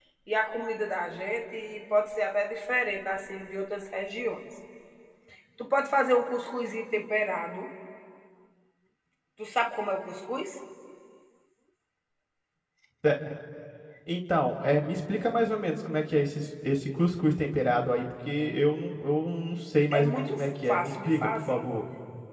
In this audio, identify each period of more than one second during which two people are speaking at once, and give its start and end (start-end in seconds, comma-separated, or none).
19.9-21.6